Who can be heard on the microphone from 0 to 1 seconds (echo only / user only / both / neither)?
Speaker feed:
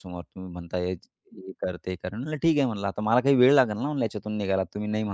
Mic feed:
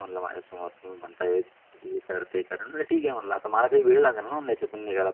echo only